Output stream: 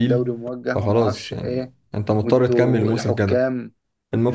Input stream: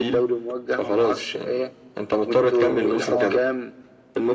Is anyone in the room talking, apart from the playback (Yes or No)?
Yes